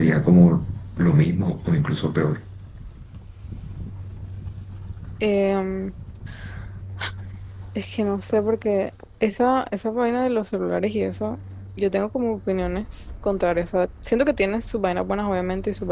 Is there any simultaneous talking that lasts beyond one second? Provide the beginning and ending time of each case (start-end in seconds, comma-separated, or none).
none